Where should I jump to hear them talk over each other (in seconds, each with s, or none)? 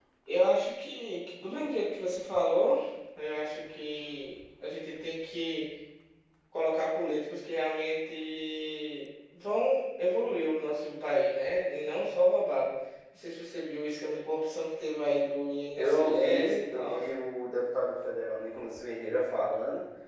15.8 s